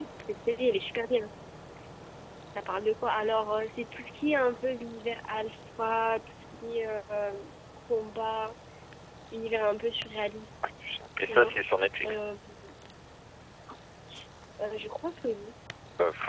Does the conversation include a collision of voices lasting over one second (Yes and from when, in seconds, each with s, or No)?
No